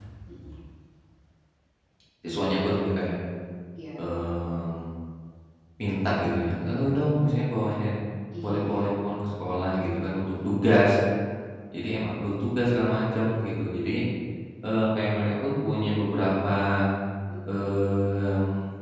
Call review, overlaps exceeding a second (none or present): none